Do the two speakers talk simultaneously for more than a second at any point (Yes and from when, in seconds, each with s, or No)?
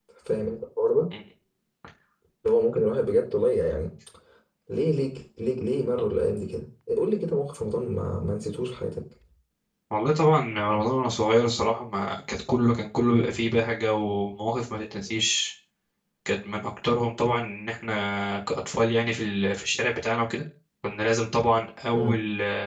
No